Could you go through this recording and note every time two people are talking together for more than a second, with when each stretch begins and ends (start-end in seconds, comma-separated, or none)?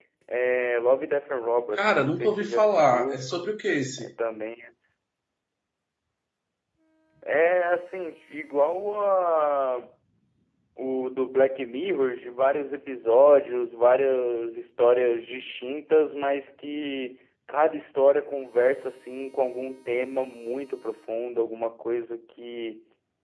1.8-3.3